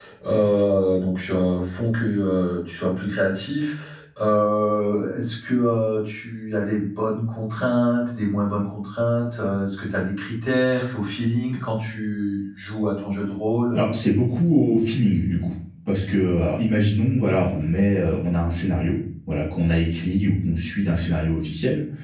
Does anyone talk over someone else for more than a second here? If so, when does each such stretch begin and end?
none

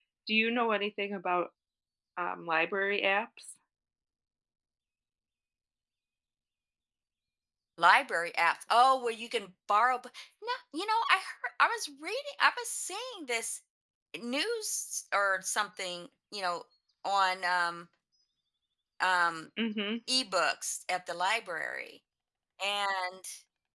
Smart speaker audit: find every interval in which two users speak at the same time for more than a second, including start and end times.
none

